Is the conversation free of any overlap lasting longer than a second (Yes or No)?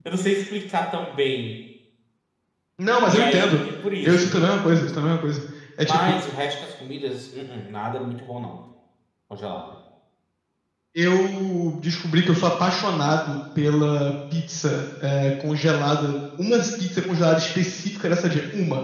Yes